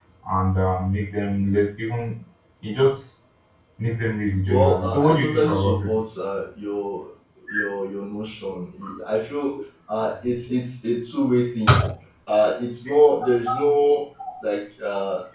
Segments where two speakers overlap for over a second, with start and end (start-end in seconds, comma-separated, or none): 4.4-5.9